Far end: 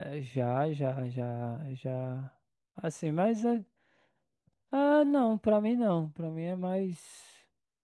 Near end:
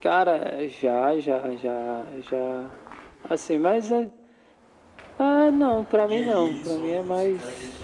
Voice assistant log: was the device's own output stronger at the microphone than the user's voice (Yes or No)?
Yes